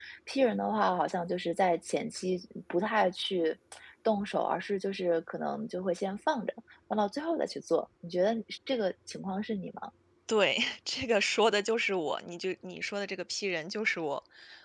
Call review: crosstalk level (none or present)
none